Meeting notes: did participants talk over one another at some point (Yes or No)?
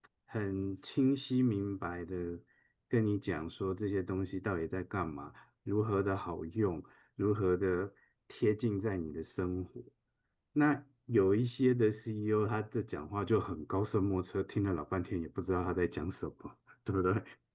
No